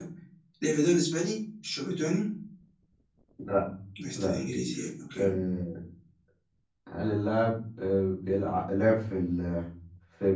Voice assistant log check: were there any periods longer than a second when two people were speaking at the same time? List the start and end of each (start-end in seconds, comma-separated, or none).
none